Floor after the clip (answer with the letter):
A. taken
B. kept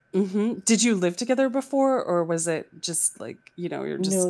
A